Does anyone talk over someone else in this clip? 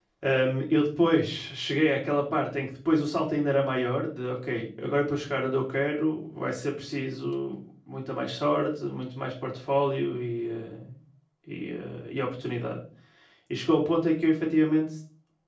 No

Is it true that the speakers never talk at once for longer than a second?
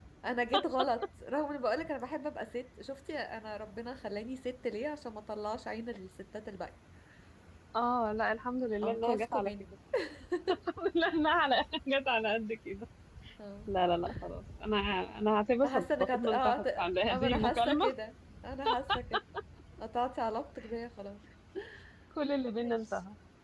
No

